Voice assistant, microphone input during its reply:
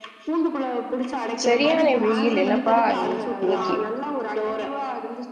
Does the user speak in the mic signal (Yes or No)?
Yes